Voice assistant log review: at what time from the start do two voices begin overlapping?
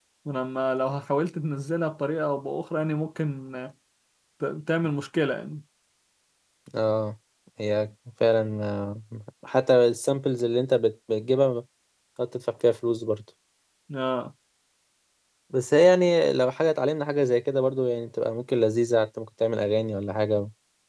none

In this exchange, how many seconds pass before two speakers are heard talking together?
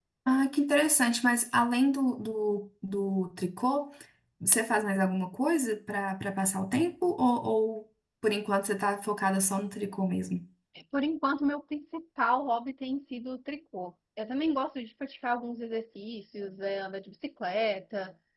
none

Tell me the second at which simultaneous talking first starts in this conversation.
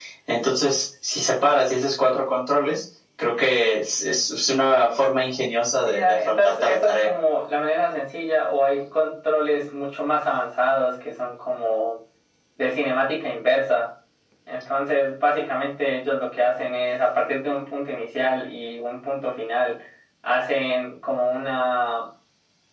5.8 s

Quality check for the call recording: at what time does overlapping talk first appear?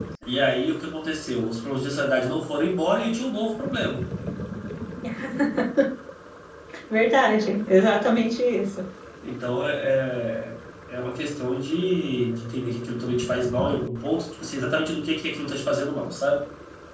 none

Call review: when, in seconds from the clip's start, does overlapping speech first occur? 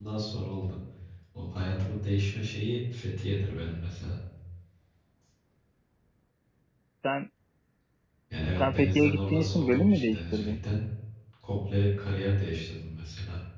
8.6 s

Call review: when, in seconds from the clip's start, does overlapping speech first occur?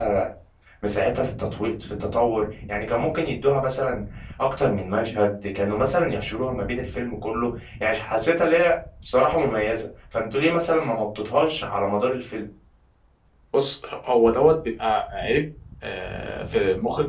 none

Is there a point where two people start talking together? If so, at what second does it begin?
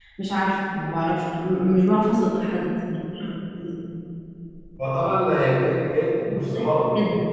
none

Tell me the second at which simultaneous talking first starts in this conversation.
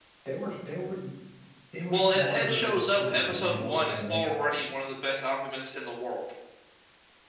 1.9 s

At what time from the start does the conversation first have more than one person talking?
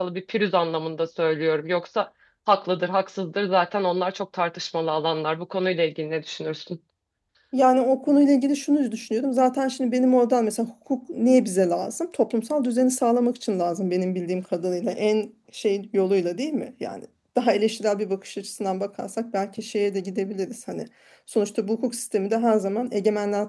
none

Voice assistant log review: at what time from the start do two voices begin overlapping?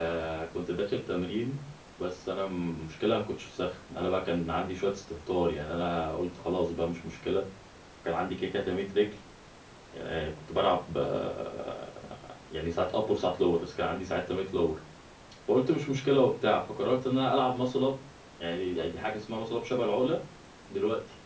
none

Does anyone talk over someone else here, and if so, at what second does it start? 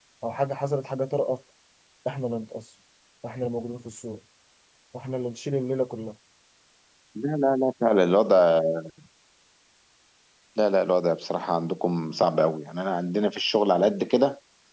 none

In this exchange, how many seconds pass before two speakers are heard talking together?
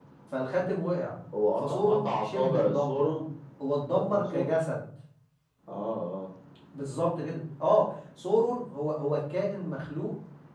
1.6 s

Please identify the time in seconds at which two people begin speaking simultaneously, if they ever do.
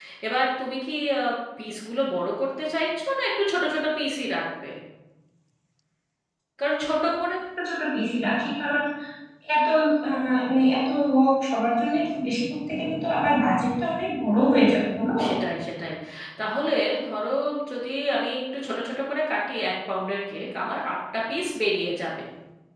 none

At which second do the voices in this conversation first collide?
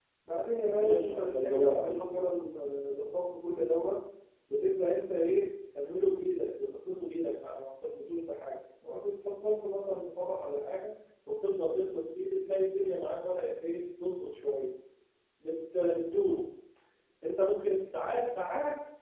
0.7 s

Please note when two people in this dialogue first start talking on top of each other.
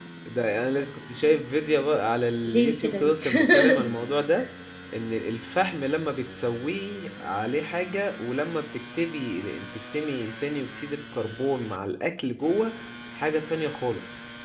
2.4 s

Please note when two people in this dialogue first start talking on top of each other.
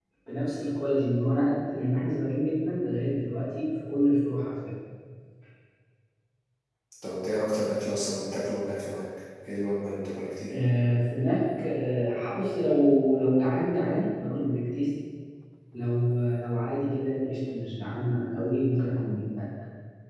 none

